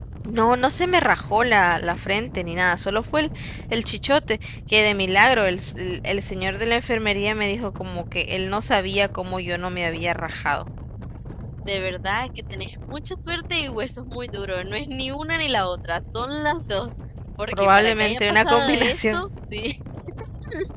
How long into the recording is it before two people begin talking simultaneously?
17.5 s

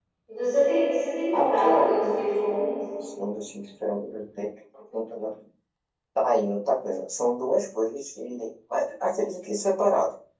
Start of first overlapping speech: 1.3 s

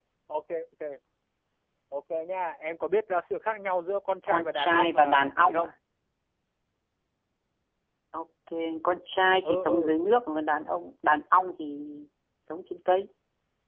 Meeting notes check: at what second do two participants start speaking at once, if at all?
4.3 s

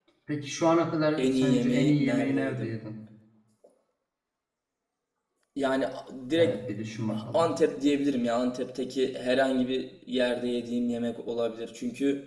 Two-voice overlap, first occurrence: 1.2 s

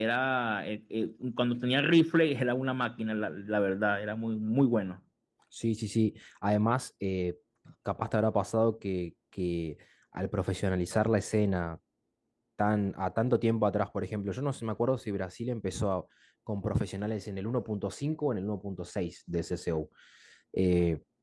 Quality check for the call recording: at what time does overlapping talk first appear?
none

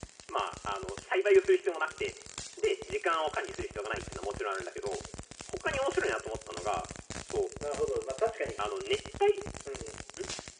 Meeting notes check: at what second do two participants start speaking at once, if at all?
none

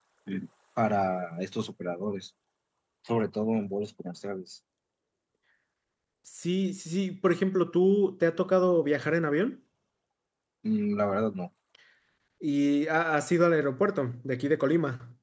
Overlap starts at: none

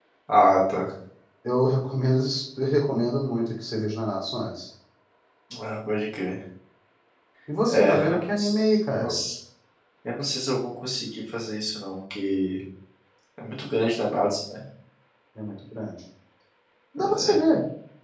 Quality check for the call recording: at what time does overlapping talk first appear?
7.7 s

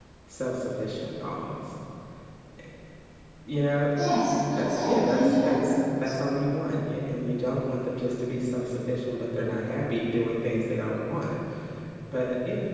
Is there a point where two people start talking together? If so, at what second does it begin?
4.5 s

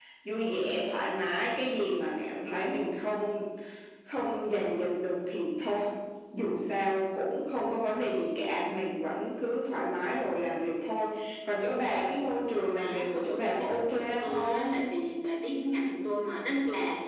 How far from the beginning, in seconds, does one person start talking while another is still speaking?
12.6 s

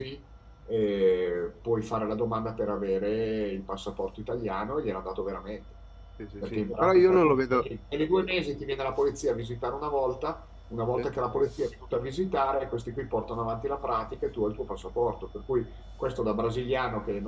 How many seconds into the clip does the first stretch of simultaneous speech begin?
6.4 s

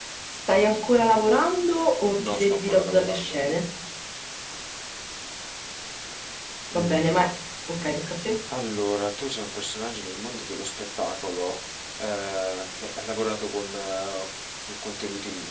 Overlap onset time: 2.2 s

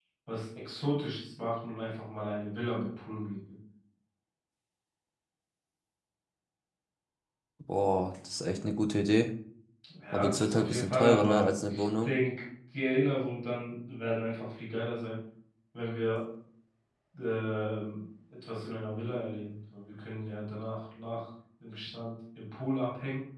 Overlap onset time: 10.1 s

